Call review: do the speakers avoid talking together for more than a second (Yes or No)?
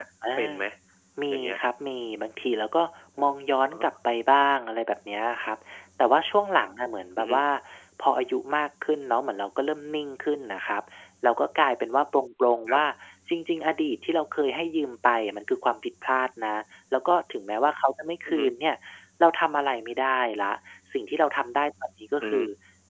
Yes